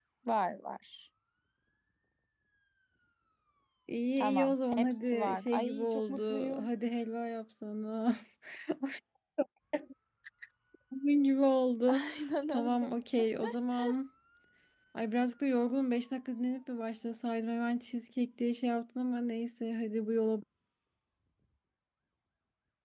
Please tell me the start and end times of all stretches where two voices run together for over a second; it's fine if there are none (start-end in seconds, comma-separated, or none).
4.1-6.7